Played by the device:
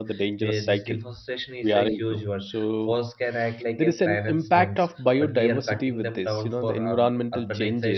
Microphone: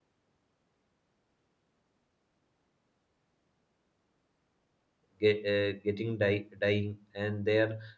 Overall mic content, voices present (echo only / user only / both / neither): user only